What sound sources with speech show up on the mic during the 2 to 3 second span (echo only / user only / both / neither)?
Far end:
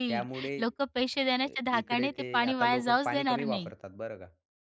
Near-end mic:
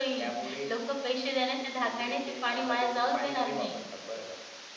echo only